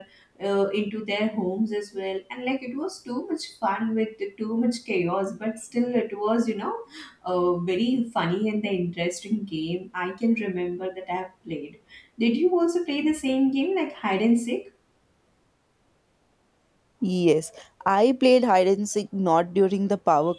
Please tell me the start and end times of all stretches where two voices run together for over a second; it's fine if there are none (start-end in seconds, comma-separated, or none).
none